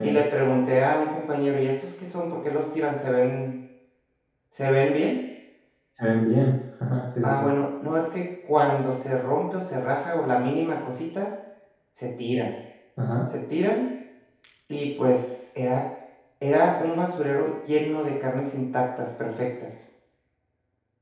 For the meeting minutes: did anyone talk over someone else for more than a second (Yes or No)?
No